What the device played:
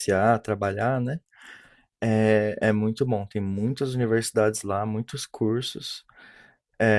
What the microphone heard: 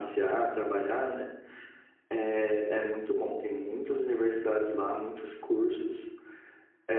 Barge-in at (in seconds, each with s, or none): none